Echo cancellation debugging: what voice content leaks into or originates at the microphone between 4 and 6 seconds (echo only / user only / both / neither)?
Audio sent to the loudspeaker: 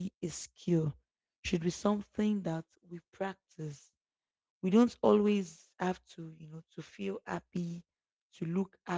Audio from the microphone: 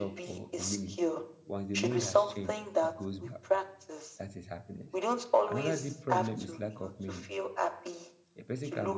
both